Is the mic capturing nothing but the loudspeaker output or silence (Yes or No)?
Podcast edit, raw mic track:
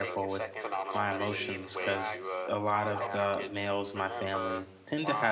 No